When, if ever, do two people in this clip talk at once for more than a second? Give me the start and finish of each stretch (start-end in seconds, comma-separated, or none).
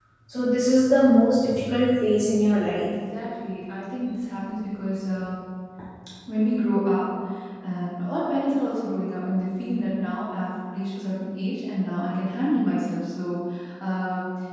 none